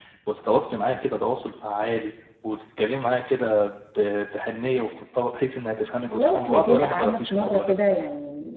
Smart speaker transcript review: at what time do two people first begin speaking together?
6.1 s

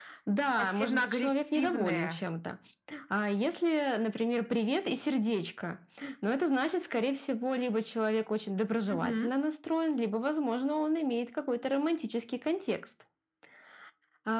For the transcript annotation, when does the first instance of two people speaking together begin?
0.6 s

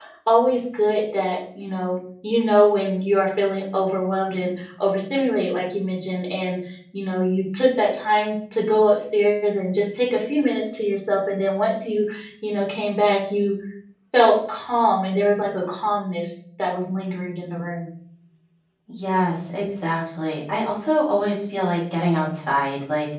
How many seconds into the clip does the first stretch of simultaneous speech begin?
none

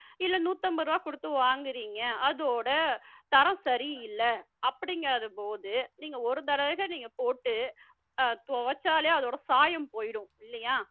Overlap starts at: none

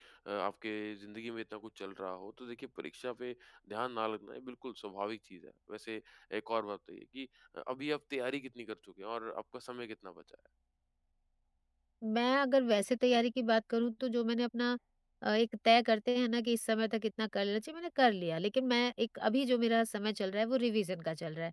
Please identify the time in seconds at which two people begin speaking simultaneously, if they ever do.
none

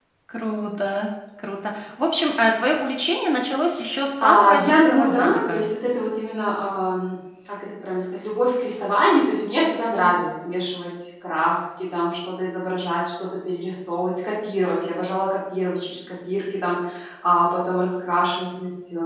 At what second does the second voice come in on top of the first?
4.2 s

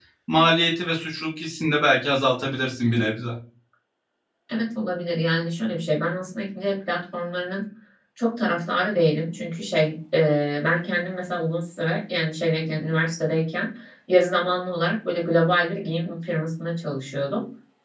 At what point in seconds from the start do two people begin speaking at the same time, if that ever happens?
none

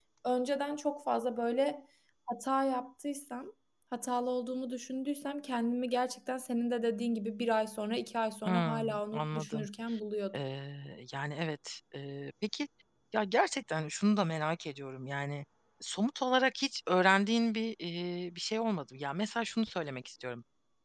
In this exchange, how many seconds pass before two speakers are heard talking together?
8.4 s

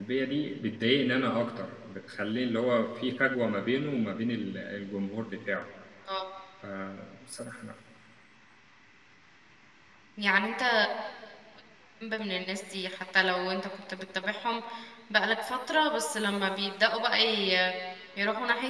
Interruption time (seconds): none

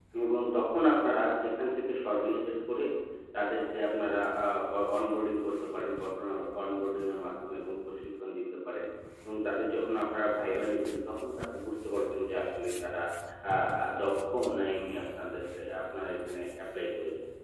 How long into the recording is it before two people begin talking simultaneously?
none

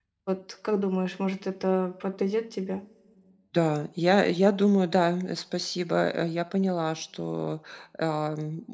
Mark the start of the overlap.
none

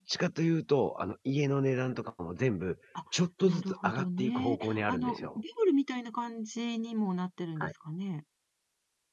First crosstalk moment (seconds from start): 3.5 s

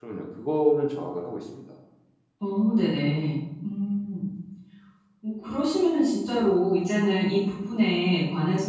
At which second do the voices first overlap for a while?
none

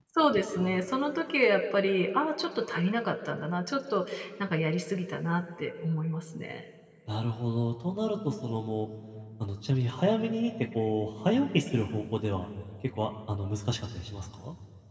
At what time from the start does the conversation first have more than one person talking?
none

